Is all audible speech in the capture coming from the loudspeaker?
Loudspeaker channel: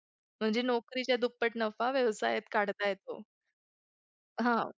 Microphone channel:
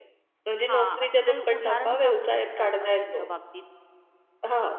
No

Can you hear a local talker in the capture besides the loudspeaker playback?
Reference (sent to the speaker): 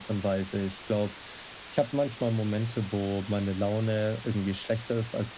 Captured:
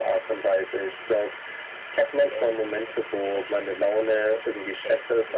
Yes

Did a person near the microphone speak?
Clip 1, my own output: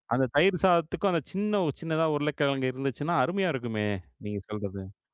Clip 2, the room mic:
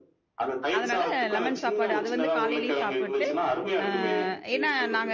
Yes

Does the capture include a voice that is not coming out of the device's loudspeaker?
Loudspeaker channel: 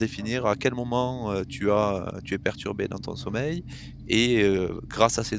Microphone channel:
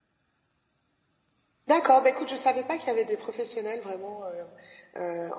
Yes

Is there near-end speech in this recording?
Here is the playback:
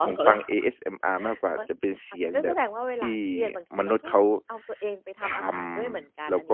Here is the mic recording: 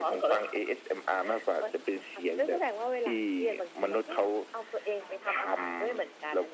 No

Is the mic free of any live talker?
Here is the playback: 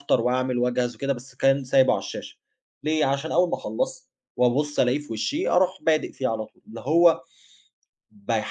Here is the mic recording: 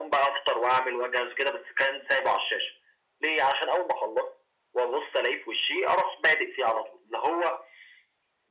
Yes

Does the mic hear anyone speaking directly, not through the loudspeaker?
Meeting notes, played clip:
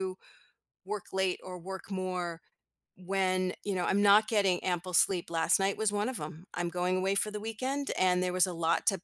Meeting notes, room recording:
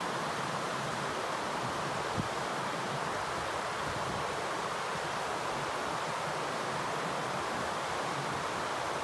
No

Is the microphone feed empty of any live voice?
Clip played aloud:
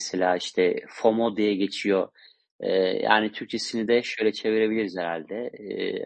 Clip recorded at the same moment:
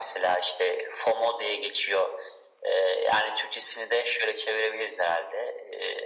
Yes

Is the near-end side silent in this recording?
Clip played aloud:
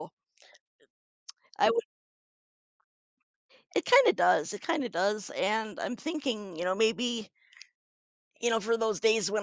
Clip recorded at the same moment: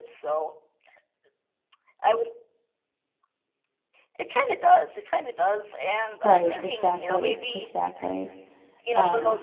No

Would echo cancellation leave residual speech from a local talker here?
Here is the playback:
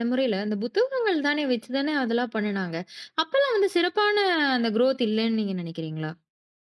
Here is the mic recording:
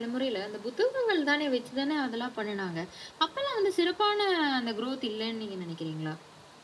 No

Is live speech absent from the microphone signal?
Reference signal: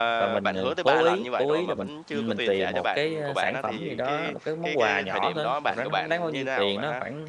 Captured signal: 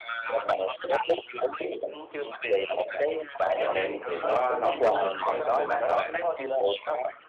No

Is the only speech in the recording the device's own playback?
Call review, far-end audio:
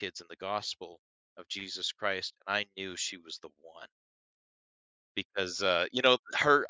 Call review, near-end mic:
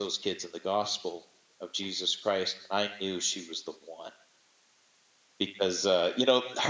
Yes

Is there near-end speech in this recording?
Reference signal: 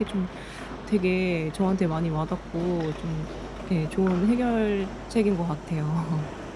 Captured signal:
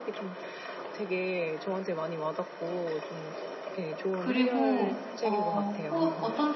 Yes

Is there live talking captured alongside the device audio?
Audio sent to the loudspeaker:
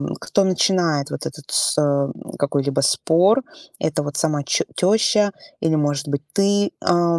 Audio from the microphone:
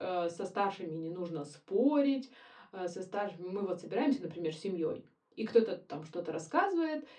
Yes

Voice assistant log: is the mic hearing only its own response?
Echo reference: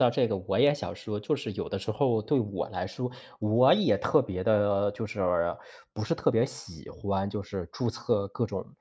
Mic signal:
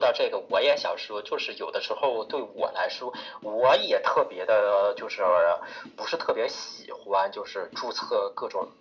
Yes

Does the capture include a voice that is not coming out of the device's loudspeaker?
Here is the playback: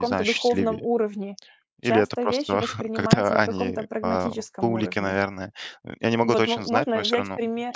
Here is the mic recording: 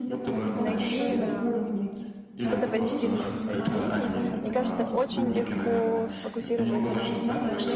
Yes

